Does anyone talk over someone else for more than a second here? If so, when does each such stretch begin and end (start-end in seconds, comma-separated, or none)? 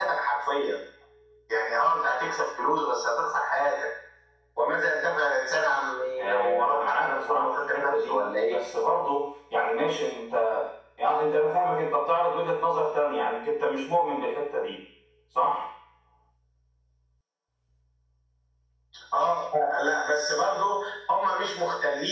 6.2-8.6